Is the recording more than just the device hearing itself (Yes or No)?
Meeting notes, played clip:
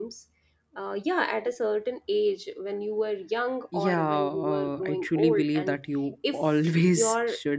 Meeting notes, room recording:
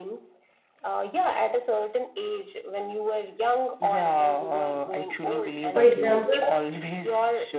Yes